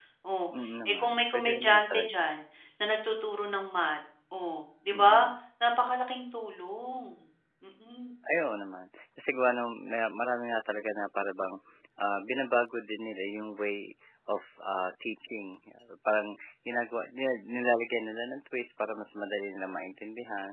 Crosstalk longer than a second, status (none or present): present